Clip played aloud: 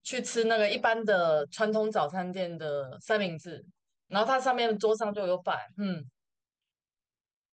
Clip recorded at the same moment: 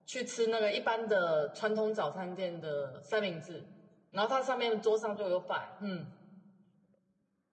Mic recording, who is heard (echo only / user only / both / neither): echo only